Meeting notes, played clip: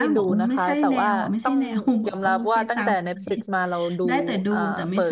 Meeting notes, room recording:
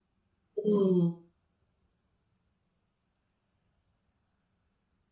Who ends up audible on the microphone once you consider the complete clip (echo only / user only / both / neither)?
user only